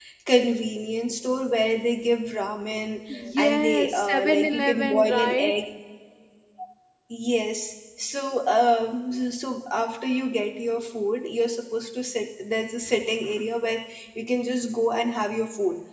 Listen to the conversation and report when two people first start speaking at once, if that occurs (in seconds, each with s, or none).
3.4 s